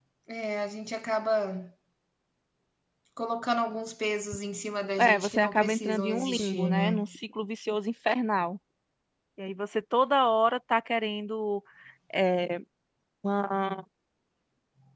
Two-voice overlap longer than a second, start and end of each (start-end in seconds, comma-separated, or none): 5.0-7.1